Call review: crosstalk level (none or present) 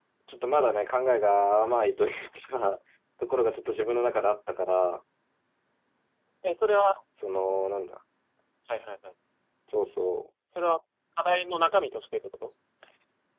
none